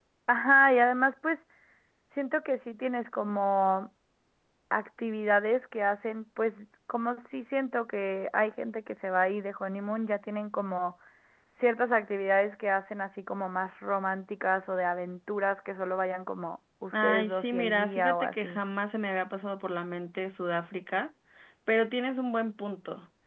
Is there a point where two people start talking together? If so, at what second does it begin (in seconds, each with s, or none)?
16.9 s